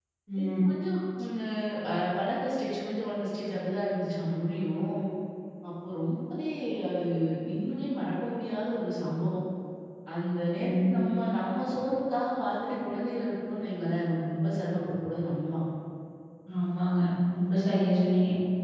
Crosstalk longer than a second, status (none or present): none